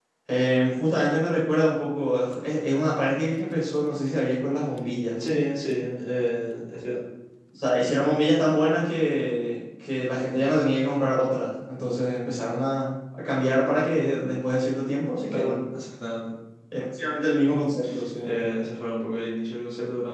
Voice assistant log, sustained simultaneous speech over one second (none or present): none